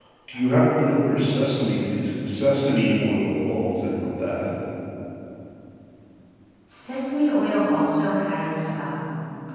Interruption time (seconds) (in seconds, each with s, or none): none